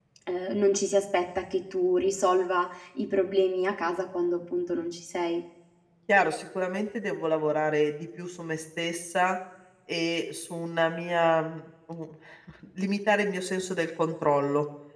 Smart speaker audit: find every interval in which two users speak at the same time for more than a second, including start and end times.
none

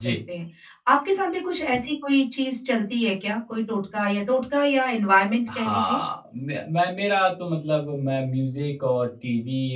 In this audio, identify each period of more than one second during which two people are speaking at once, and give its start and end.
none

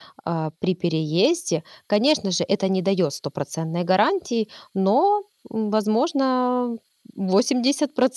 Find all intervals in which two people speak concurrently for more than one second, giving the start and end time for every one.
none

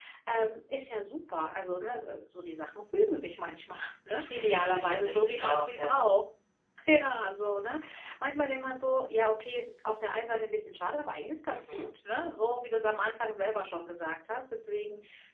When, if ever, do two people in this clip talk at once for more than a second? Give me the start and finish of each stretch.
4.1-6.1

